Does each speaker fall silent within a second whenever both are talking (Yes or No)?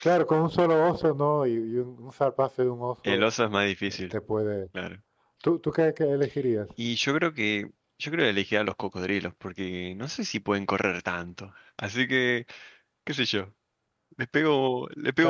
Yes